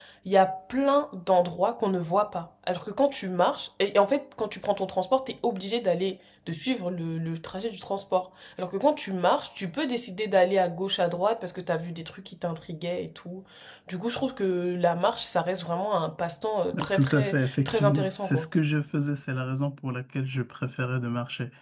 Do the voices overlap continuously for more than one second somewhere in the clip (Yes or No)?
Yes